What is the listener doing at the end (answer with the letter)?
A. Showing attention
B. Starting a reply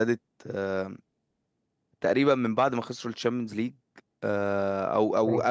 A